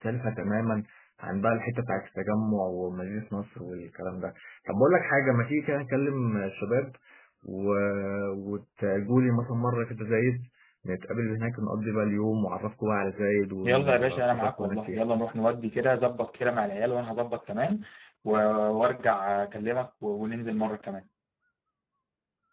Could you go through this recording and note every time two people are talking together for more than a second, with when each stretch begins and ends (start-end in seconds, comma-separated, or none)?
13.6-15.0